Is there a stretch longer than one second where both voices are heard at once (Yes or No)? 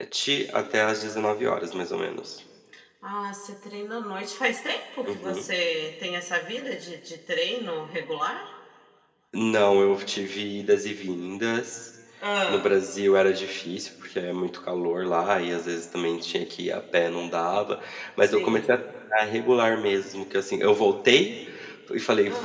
No